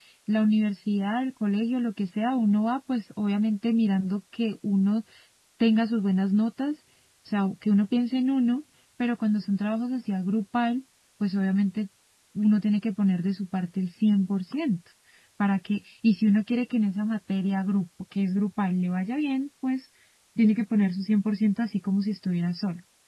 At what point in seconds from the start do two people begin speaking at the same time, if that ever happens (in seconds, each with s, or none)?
none